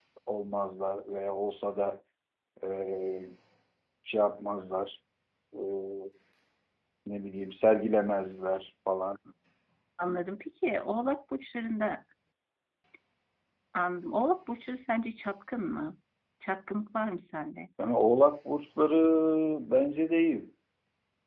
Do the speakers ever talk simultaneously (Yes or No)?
No